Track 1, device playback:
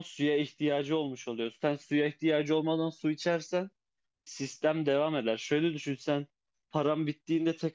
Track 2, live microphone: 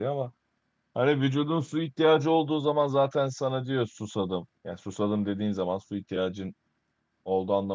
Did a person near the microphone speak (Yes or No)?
Yes